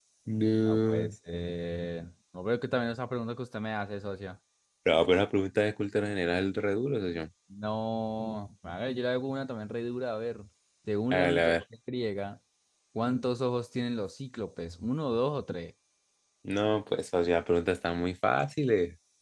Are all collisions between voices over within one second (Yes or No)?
Yes